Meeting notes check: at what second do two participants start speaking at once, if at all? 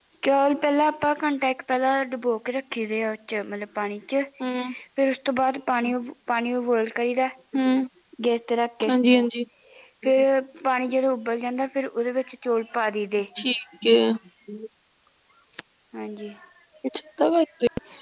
none

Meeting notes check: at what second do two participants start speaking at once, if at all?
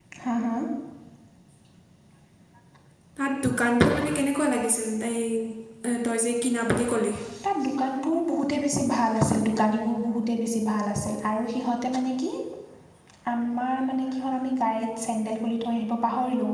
none

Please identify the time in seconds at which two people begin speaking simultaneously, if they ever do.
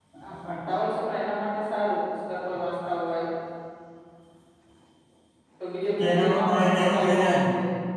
6.0 s

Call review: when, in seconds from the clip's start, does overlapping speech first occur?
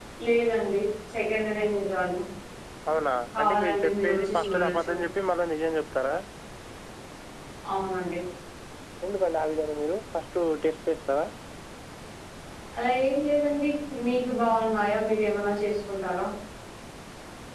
3.4 s

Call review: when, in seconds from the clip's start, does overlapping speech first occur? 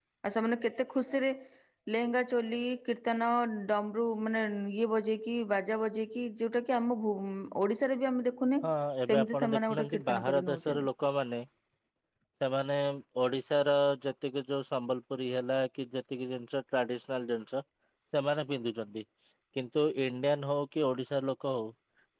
9.1 s

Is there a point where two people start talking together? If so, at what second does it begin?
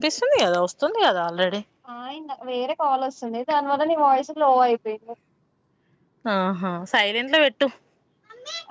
none

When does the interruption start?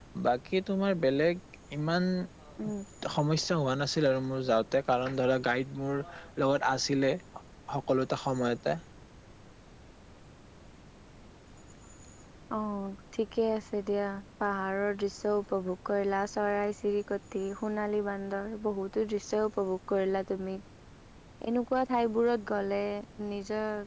none

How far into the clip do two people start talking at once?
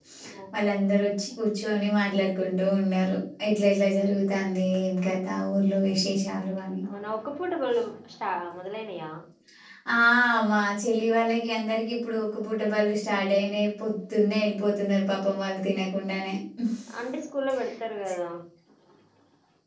none

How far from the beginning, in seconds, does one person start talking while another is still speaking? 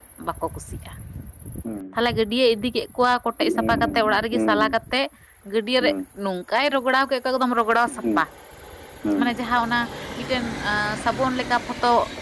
3.4 s

